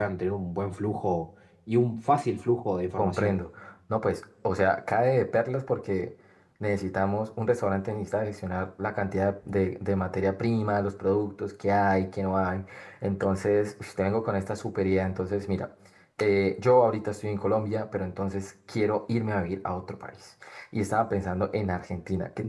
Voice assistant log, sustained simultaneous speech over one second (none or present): none